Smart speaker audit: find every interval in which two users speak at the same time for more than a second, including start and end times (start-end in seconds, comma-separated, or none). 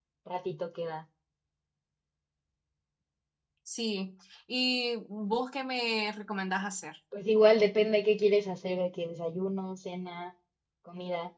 none